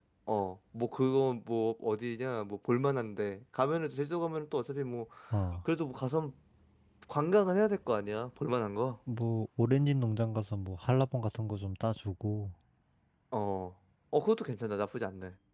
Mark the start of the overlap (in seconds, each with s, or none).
none